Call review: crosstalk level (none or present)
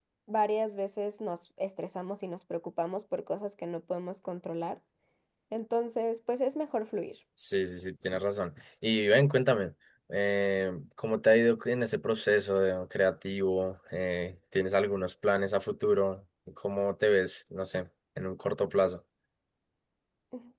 none